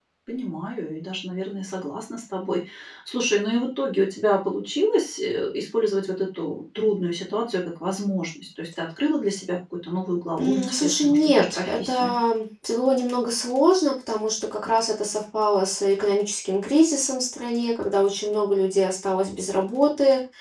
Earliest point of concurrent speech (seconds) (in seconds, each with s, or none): 10.4 s